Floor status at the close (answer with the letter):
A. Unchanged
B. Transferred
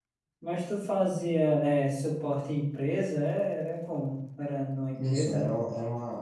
B